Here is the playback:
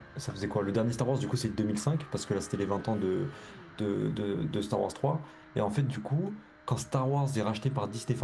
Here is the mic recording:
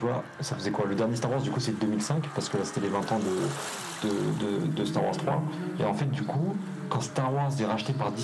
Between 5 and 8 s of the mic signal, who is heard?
both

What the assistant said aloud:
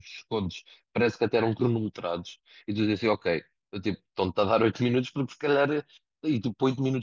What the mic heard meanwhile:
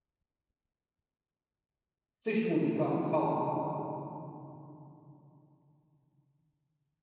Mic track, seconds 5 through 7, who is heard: neither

